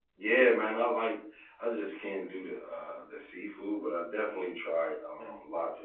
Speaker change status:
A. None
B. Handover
A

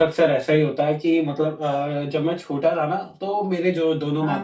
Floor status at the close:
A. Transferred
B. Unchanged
B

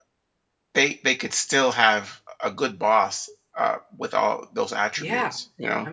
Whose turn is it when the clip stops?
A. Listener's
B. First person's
A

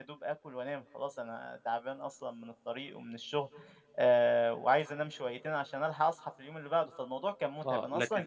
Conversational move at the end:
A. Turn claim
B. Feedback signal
A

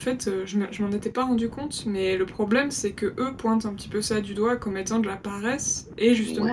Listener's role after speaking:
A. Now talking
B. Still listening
B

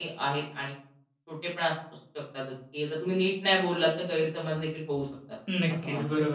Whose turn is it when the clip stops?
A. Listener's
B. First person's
A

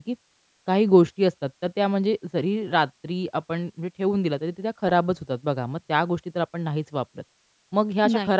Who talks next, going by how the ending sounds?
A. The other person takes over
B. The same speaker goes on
B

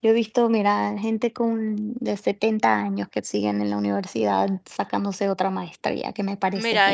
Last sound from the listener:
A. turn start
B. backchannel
A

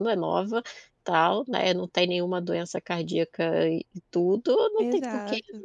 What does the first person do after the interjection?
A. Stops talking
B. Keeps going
B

